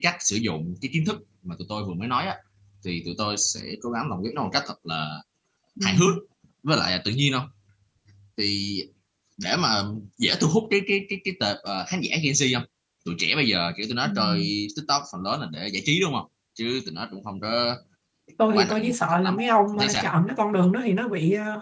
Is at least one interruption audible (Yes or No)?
Yes